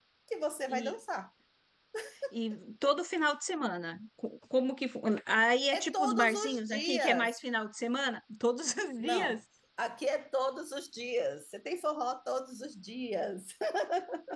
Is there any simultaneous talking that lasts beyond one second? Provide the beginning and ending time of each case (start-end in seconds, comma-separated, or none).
5.7-7.3